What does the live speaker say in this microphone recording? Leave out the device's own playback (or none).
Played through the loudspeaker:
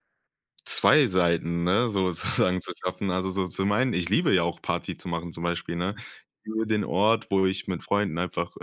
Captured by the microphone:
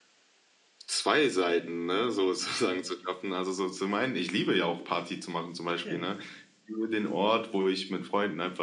Okay.